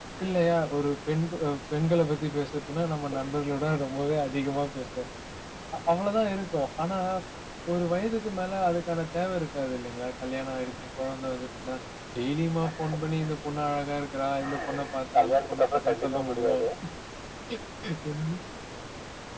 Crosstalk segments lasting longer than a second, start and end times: 15.2-16.6

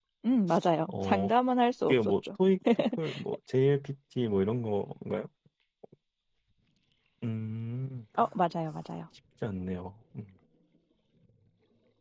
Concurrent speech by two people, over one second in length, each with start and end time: none

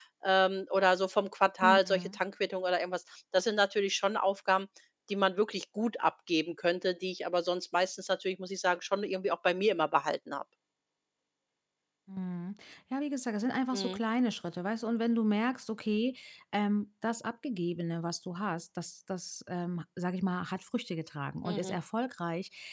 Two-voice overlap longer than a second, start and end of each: none

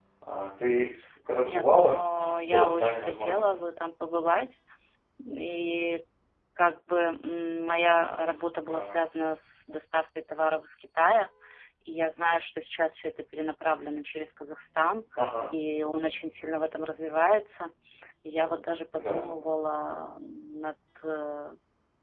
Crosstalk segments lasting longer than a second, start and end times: 1.3-3.6

